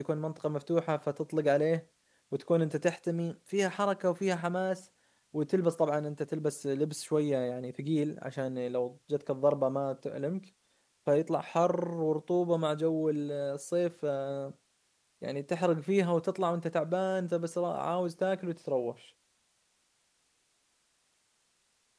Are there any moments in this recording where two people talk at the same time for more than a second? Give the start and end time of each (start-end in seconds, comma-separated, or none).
none